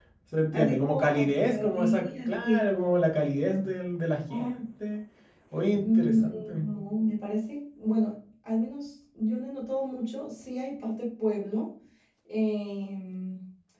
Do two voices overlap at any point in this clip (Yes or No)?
Yes